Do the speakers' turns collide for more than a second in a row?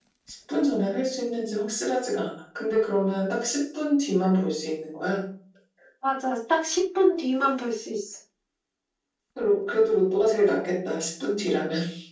No

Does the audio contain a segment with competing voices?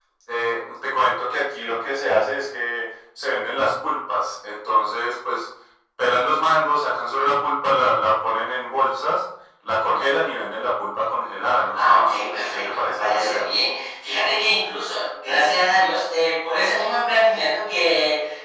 Yes, from 11.7 s

